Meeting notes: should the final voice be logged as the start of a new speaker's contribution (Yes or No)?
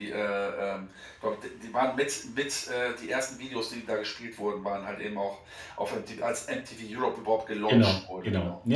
Yes